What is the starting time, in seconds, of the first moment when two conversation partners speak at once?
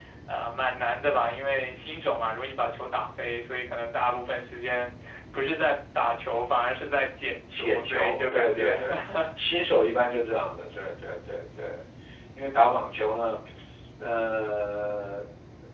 8 s

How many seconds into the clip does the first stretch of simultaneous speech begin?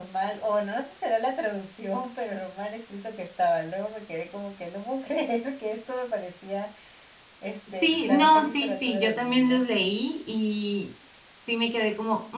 8 s

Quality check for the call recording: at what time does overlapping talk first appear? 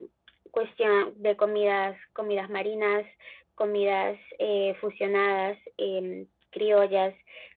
none

